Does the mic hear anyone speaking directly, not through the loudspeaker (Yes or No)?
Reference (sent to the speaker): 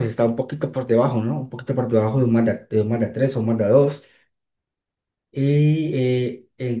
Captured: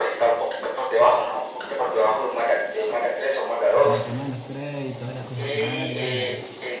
Yes